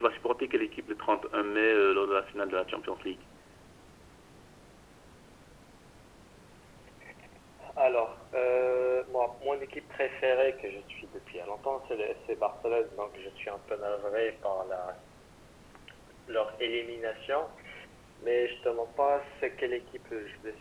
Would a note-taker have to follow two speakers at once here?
No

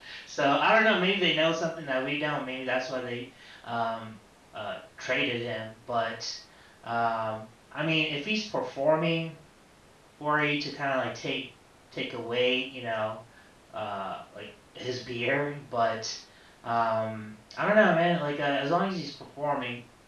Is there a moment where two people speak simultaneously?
No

